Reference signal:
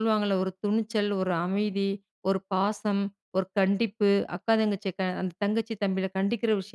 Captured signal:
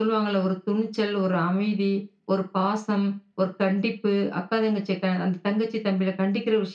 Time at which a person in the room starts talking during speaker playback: none

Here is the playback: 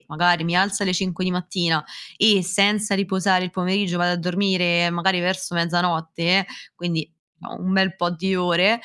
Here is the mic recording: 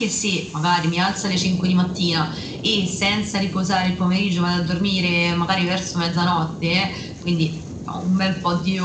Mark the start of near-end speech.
none

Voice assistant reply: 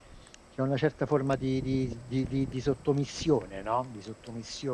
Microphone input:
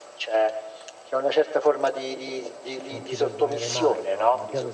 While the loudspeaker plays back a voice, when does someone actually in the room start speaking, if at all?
2.9 s

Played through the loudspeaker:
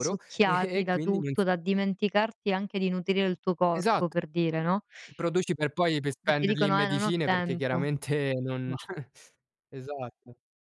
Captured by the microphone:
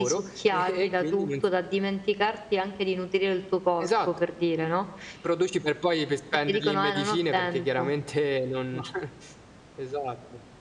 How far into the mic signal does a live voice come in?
none

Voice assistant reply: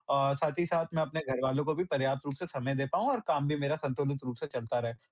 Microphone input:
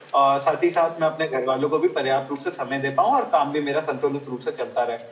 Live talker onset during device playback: none

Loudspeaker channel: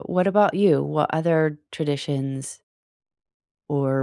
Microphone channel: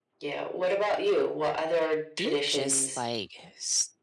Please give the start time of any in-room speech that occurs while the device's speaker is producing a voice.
2.2 s

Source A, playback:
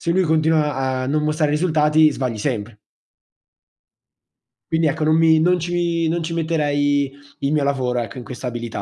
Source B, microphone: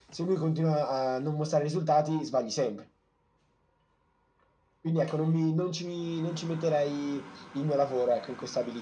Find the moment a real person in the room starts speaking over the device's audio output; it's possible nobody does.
none

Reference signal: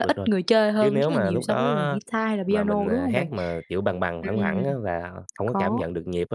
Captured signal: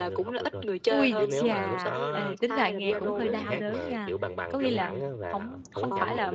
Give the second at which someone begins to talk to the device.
0.9 s

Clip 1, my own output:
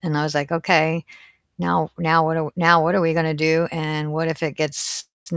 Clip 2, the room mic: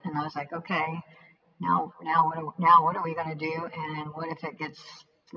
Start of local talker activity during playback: none

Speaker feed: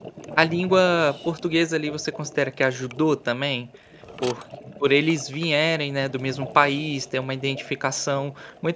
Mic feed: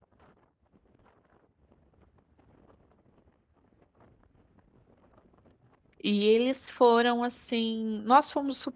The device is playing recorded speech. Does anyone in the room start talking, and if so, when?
6.0 s

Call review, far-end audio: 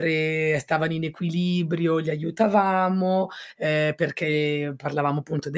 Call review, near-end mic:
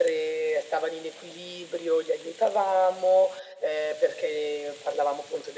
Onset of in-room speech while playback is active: none

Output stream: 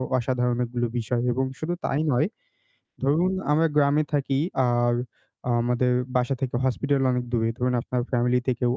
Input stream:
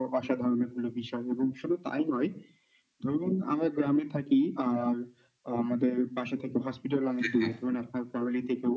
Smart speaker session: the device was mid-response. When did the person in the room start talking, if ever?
7.2 s

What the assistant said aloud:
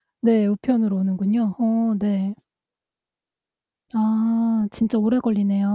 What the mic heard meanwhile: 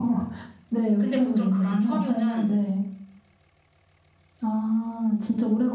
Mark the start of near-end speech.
1.0 s

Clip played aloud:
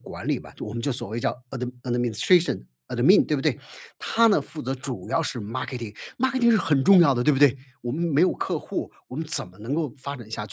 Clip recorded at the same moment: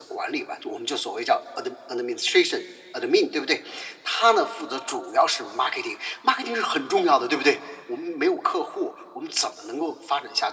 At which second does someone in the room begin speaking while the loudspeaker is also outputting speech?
none

